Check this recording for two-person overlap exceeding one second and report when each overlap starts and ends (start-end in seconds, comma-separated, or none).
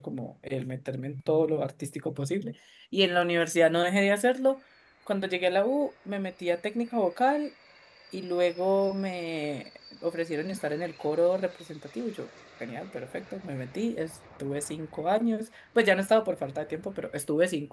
none